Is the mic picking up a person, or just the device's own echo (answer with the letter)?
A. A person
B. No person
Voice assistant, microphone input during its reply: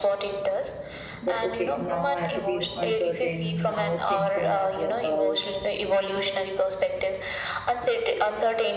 A